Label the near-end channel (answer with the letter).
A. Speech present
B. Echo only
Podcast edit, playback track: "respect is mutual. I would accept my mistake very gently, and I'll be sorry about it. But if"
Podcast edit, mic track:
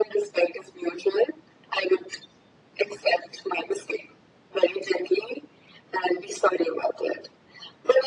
B